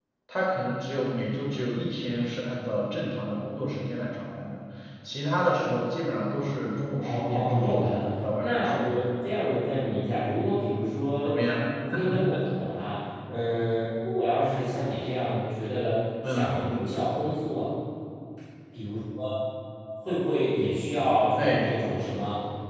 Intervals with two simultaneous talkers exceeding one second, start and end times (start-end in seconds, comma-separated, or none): 7.0-8.8